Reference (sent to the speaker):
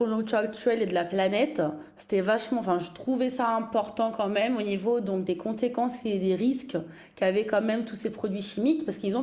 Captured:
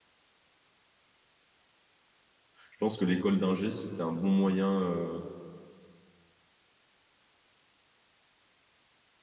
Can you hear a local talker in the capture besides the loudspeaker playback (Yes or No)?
Yes